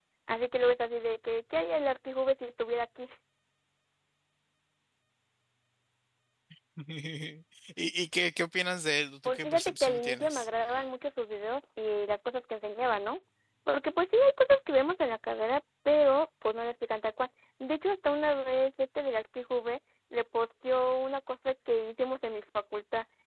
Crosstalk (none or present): present